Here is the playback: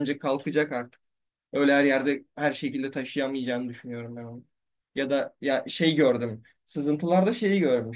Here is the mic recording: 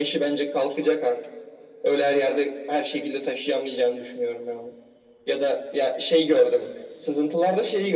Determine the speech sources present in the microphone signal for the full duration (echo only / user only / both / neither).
echo only